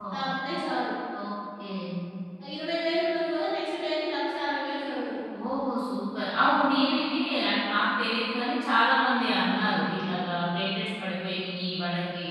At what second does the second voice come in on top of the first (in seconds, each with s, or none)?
none